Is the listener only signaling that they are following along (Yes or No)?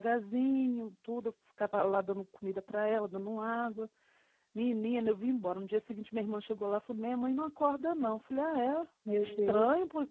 Yes